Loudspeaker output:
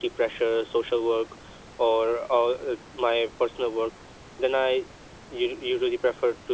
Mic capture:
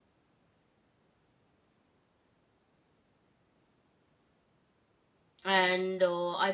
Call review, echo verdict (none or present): none